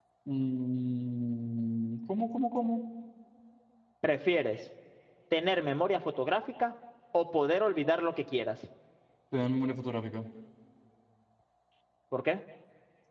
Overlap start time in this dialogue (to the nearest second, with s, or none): none